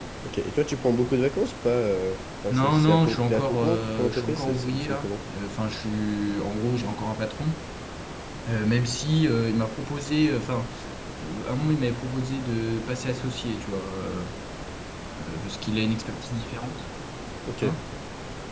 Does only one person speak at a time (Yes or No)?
No